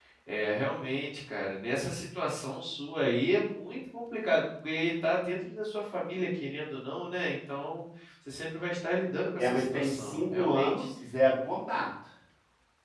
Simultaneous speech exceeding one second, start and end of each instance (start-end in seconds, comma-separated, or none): 9.4-10.9